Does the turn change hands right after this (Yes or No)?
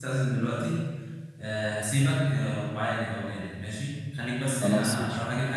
No